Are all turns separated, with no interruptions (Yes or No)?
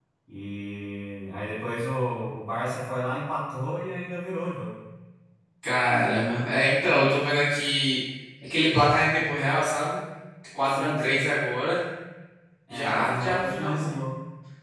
No